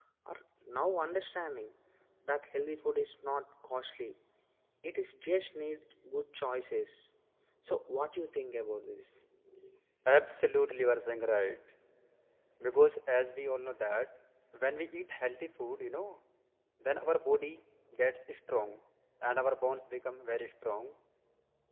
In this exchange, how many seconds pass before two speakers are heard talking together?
none

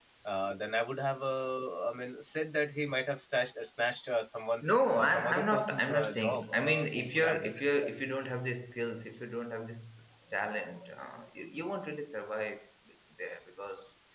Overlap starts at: 5 s

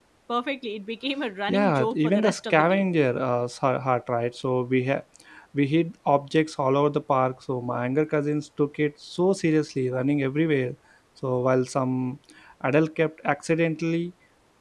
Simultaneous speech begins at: 1 s

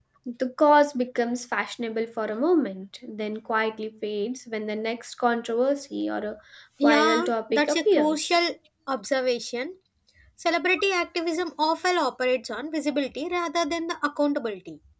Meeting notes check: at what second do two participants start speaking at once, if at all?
7 s

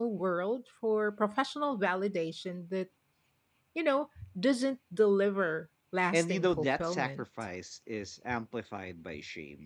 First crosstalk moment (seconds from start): 6 s

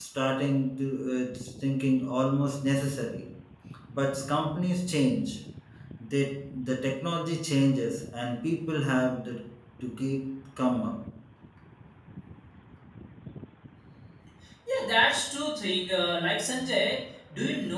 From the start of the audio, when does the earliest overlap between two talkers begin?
none

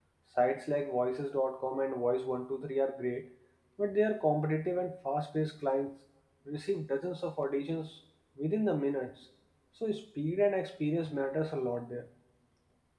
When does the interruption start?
none

